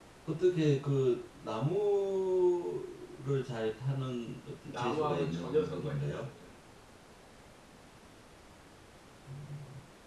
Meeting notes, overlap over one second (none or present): present